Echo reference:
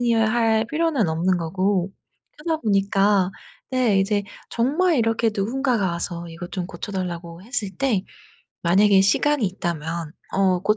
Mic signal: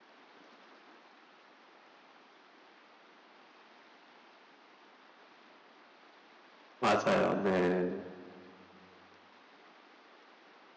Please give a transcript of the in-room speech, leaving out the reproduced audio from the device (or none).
맞아요. 네.